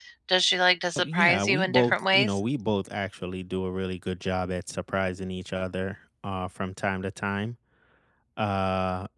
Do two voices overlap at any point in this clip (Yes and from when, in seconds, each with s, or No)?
Yes, from 1.0 s